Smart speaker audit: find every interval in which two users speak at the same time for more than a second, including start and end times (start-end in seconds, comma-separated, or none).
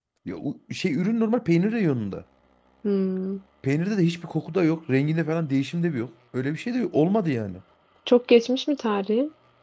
none